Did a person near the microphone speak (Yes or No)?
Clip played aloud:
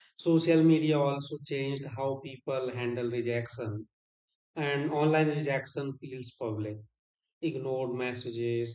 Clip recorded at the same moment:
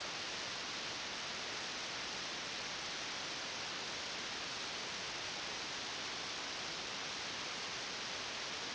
No